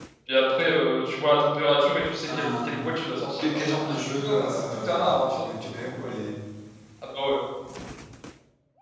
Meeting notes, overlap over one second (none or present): present